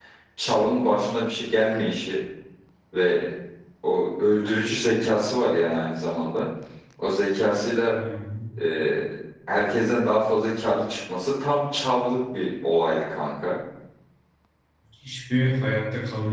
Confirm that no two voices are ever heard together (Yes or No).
Yes